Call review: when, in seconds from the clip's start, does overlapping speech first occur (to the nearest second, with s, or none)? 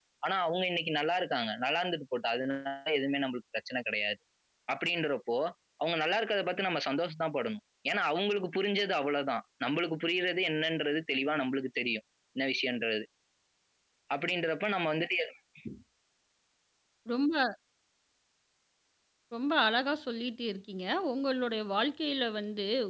none